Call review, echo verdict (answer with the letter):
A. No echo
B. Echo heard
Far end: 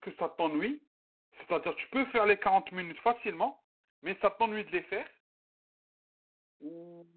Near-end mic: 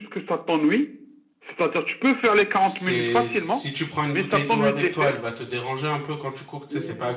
B